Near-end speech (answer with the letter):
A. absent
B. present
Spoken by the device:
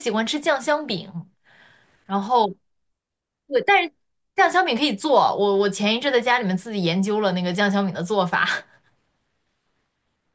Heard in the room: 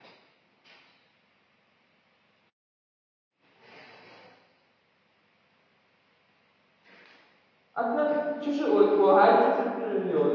B